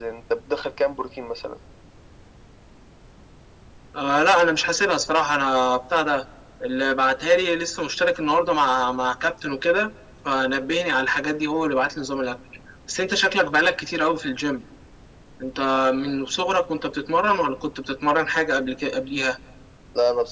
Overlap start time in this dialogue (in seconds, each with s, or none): none